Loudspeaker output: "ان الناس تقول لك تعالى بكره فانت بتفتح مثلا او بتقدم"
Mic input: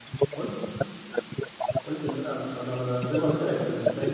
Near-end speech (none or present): present